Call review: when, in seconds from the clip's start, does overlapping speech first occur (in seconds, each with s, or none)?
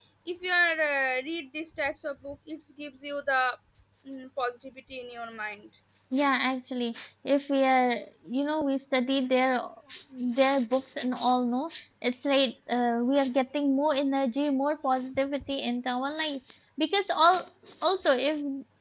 none